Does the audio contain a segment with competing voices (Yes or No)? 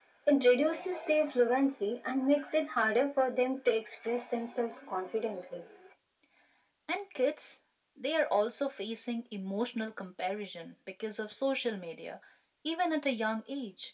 No